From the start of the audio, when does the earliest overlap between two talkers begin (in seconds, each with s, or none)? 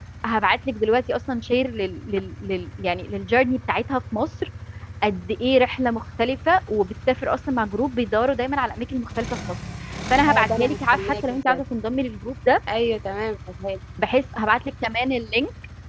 10.3 s